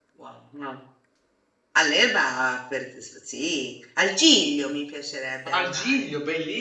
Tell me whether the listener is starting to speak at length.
Yes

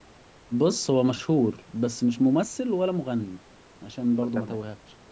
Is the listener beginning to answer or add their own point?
Yes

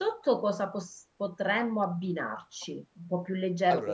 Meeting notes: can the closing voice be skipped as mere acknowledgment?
Yes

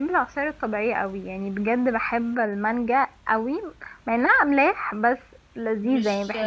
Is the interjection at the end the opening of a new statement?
Yes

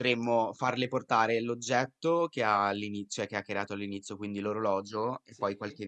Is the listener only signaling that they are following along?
Yes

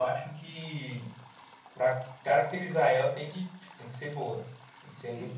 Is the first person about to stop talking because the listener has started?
Yes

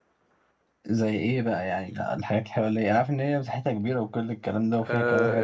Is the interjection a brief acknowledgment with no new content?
No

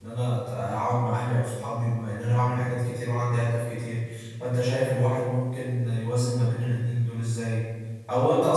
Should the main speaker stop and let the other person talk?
No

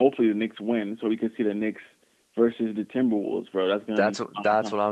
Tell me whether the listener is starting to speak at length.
Yes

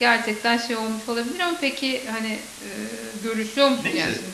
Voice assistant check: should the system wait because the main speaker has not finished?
No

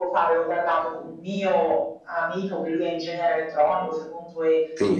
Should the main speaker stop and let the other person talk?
No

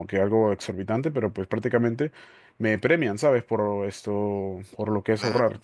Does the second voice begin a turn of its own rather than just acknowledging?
No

